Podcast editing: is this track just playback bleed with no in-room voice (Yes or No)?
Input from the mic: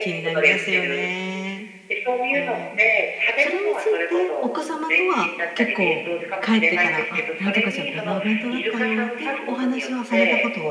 No